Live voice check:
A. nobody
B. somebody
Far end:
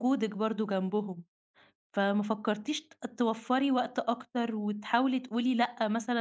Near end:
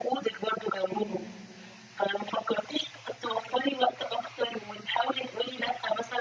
B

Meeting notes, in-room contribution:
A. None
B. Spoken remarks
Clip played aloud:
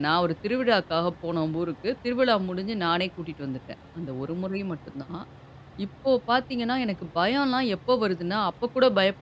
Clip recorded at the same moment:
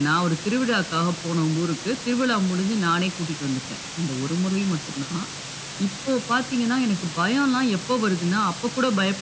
A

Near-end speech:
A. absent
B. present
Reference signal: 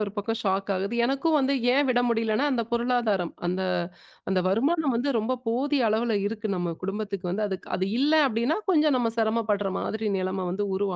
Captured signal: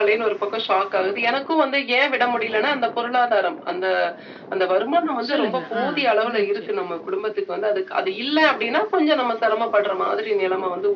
B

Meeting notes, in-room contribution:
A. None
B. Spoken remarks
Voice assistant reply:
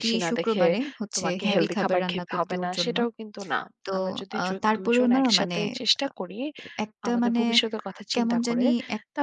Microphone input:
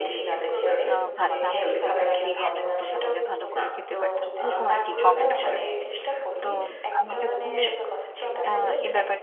B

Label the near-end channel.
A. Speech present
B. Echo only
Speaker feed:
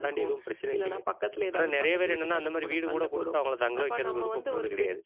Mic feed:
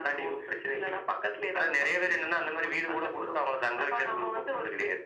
B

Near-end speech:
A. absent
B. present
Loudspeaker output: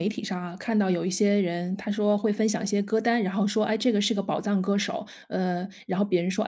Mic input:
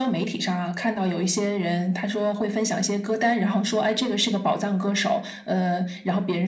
B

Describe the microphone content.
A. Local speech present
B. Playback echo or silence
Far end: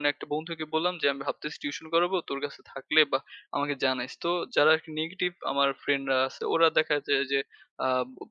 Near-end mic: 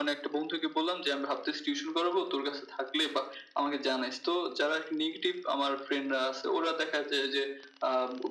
B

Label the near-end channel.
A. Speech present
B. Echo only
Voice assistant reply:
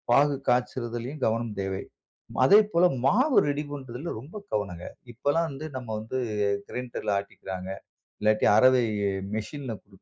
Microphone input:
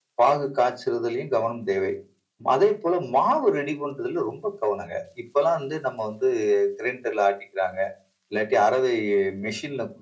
B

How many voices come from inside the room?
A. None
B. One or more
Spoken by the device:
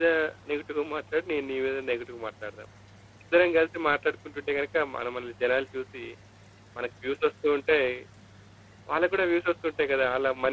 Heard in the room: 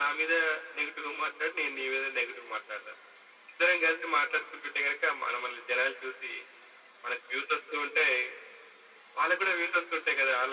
A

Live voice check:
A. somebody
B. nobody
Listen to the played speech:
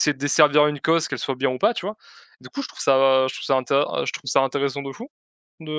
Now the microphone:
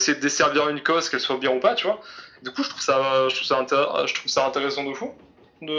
B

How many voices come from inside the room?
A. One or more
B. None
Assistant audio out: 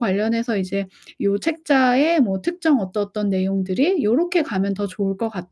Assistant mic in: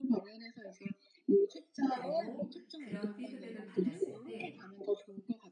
A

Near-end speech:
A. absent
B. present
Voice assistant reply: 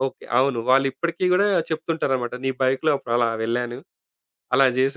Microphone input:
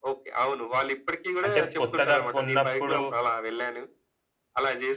B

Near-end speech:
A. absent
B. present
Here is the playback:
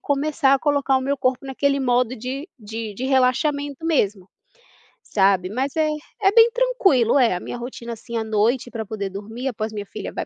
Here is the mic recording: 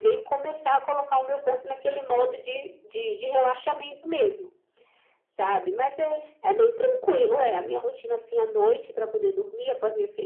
B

